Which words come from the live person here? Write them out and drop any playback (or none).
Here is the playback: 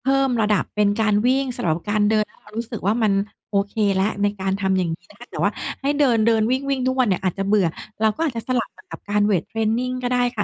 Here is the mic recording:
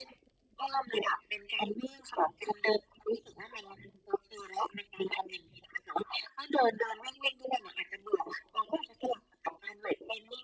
none